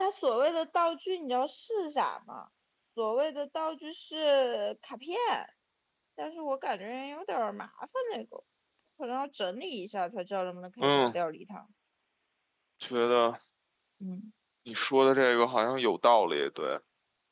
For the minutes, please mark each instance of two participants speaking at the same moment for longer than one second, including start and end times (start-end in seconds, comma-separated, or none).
none